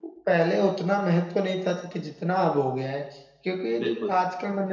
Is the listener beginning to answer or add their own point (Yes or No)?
No